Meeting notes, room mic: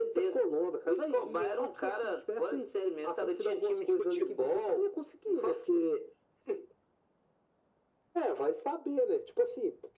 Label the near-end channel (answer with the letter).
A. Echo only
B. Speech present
A